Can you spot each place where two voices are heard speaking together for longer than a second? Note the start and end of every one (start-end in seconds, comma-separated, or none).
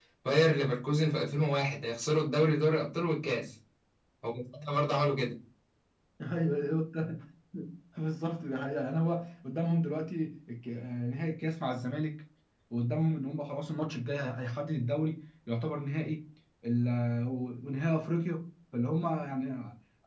none